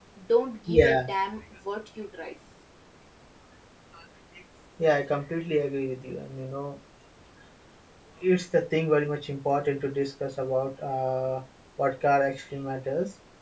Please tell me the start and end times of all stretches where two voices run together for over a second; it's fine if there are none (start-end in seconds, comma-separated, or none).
none